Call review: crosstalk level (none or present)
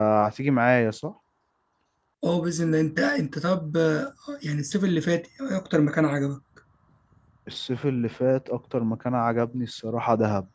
none